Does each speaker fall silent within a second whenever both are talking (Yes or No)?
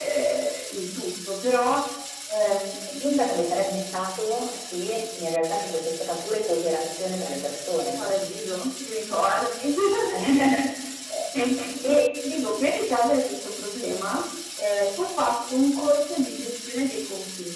Yes